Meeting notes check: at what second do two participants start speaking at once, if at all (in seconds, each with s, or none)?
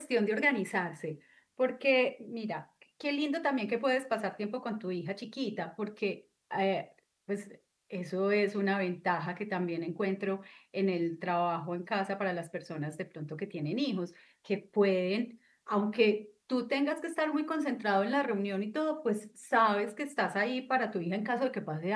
none